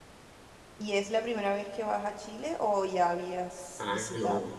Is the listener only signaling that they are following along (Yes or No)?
No